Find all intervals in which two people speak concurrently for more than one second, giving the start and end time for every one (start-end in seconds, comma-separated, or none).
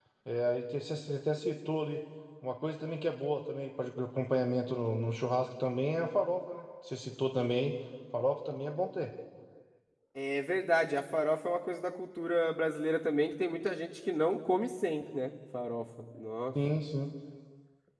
none